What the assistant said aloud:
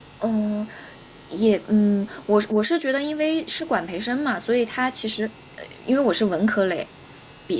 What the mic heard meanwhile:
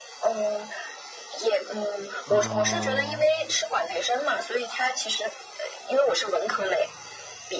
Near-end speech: present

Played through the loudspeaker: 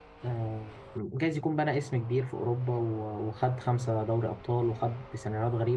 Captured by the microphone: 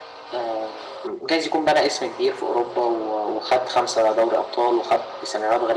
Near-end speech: none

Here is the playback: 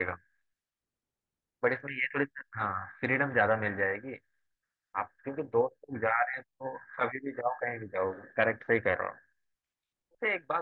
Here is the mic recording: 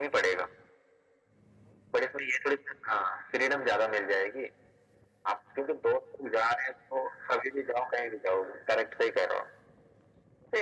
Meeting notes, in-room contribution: none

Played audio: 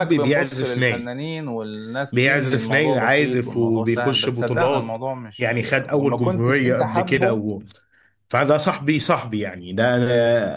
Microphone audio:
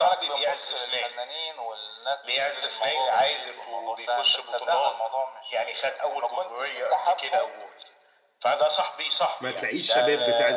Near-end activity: present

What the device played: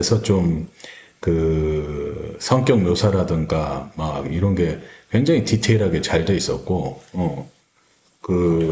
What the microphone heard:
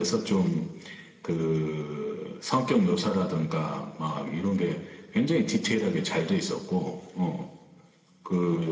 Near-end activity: none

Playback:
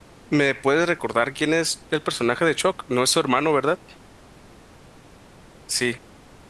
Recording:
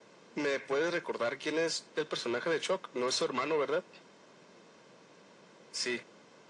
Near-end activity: none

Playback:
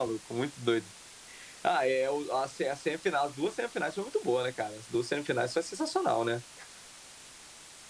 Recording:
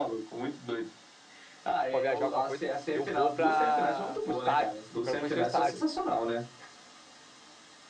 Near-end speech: present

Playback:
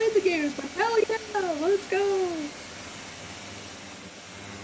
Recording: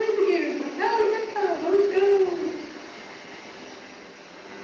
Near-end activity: none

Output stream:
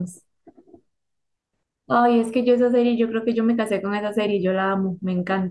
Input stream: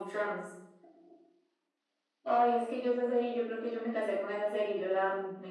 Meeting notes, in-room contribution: none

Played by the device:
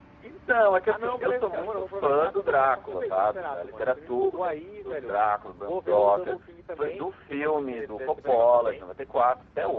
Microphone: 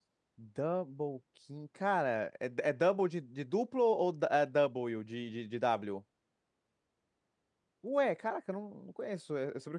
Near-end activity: present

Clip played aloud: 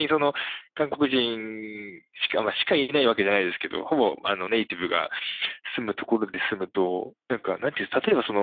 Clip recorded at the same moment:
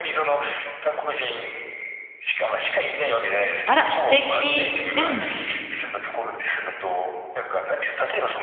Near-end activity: present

